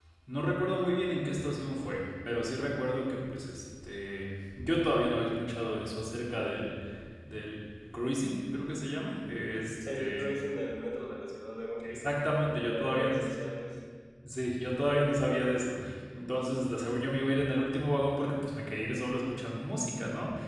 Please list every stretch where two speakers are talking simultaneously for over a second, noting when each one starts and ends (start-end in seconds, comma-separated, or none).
11.9-13.2